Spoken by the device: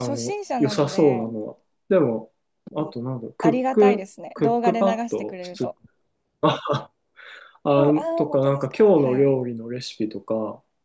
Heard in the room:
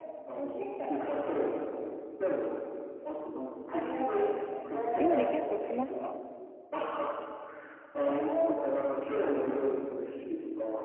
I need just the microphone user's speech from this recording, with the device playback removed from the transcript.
料理結構しますか

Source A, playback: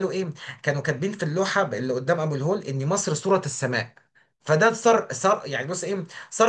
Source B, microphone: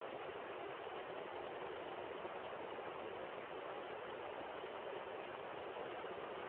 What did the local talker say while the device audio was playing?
none

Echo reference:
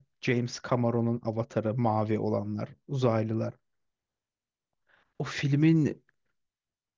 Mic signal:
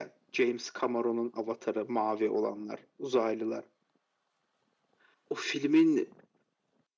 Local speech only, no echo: none

